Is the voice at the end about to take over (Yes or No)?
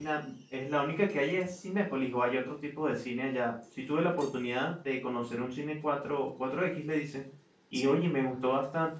No